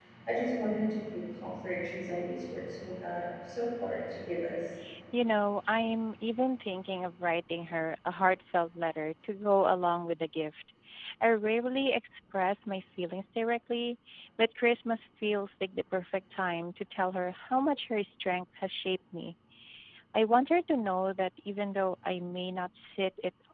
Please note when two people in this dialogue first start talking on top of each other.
none

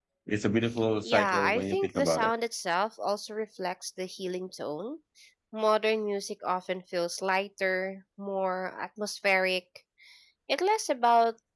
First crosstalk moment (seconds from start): 1.0 s

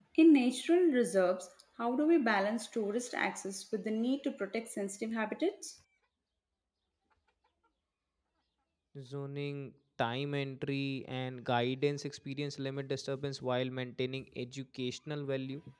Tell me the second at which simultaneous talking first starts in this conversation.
none

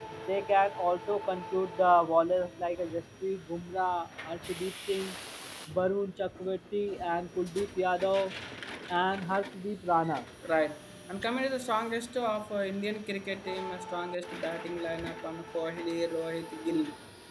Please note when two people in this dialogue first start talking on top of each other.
none

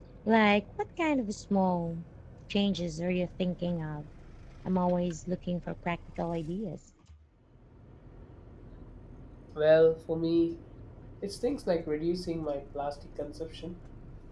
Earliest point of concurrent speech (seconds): none

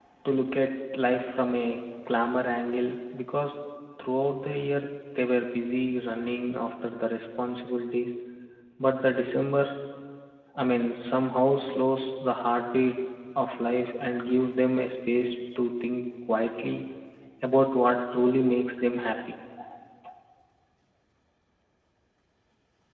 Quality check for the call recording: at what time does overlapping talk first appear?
none

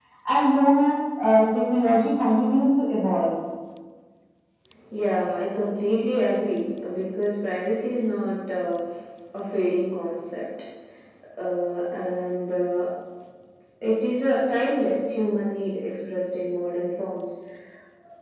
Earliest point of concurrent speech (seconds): none

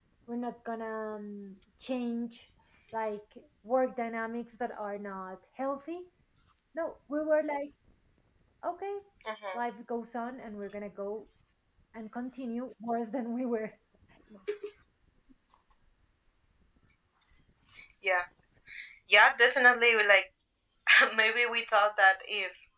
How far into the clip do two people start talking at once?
none

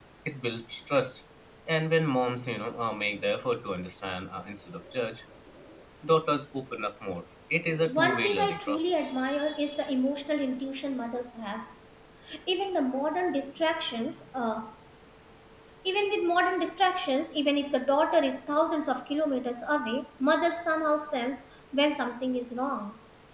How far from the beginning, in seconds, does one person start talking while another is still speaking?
7.9 s

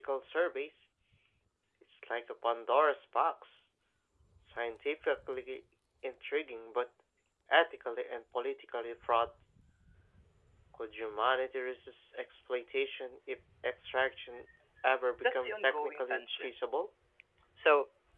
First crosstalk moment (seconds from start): 15.2 s

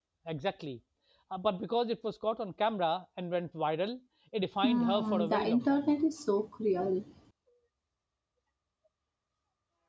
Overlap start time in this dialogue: 4.6 s

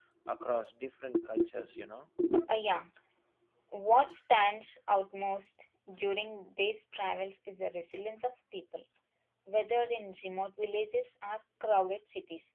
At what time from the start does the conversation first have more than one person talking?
none

